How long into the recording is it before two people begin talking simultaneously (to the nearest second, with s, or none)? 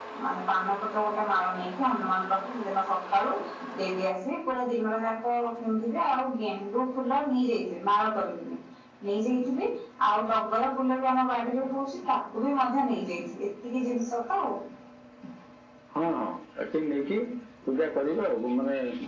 none